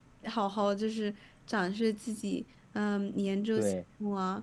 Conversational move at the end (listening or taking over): listening